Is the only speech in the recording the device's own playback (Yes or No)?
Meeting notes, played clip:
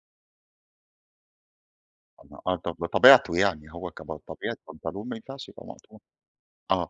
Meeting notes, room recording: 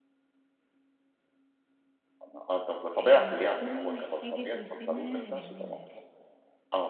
No